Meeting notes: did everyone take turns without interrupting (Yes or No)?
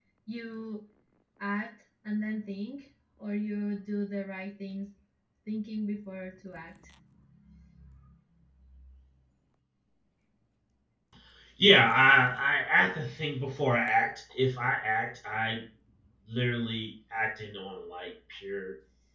Yes